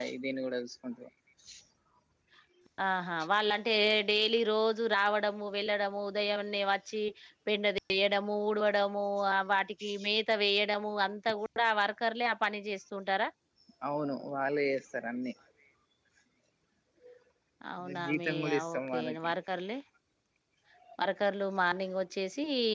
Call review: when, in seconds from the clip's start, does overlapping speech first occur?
18 s

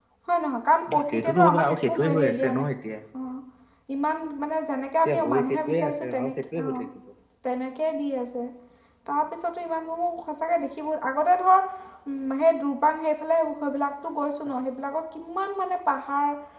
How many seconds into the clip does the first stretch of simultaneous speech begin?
1 s

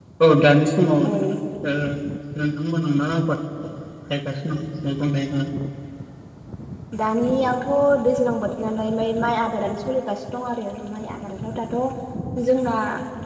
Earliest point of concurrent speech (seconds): none

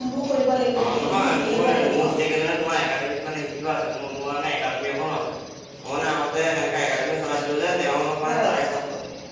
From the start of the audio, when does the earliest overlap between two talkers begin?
1 s

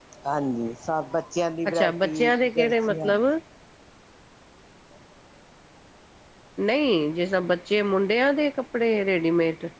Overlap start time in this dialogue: 2 s

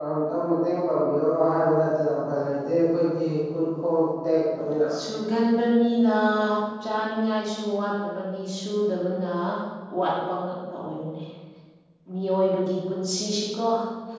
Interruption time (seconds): none

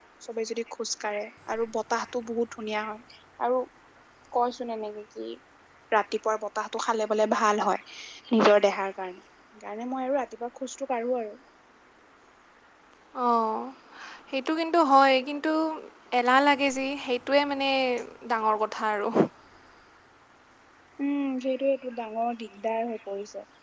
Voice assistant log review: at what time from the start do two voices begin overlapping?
none

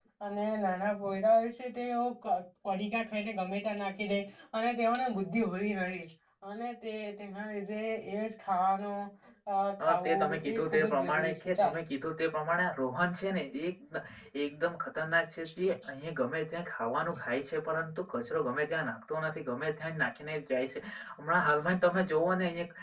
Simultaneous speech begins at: 10 s

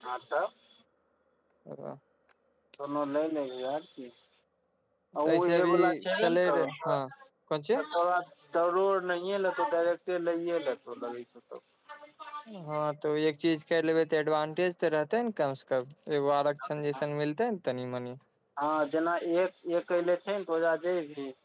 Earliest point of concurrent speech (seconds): 5 s

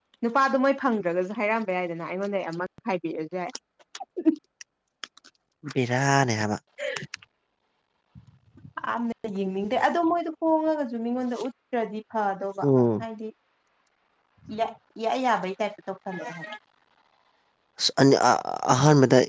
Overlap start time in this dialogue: none

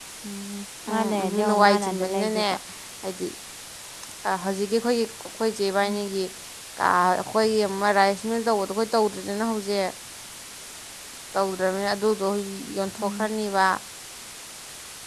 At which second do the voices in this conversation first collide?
1 s

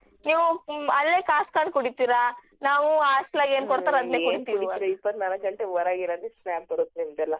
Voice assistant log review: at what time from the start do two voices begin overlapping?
4 s

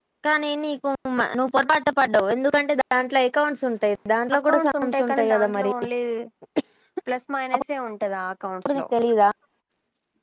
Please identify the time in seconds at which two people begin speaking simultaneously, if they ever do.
4 s

